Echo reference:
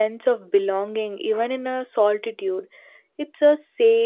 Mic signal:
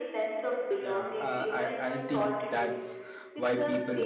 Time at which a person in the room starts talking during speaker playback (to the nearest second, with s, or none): 1 s